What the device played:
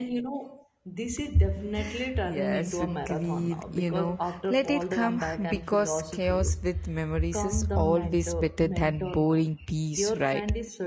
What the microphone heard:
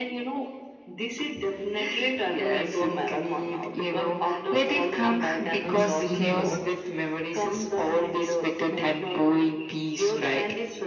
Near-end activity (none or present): present